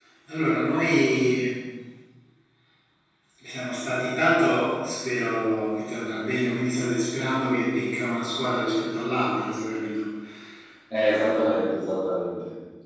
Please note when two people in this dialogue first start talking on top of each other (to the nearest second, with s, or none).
none